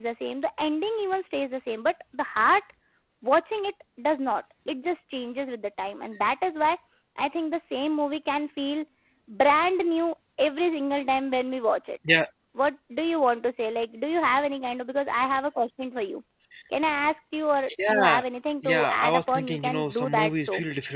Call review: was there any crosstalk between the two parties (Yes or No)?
Yes